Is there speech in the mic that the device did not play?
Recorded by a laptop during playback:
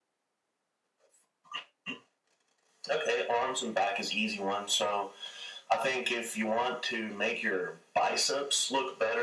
No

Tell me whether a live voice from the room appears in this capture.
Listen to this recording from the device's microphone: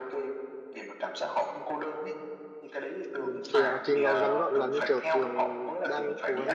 Yes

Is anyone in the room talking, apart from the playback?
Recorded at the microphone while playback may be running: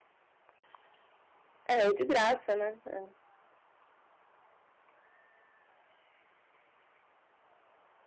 Yes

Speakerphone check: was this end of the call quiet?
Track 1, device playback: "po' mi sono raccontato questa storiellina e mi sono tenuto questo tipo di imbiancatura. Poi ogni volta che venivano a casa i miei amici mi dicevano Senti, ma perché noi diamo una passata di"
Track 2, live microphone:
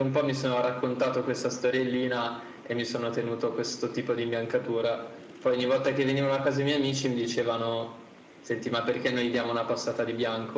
Yes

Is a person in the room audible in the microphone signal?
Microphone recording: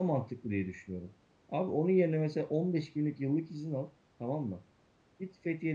Yes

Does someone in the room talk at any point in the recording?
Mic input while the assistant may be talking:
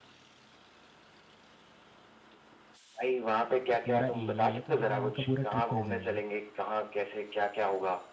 Yes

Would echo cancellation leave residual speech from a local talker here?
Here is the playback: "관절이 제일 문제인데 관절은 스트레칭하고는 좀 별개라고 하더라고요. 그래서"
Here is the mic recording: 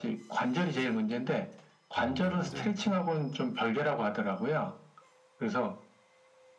Yes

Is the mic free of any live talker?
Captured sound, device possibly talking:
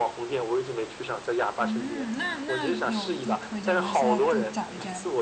No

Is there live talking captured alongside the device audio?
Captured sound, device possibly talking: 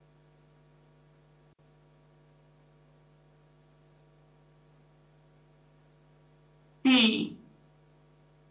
Yes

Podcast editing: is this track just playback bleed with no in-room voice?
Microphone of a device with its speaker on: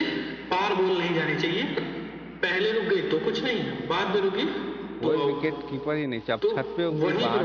No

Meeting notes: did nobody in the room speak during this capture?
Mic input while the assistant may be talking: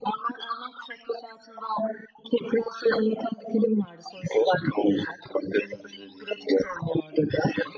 Yes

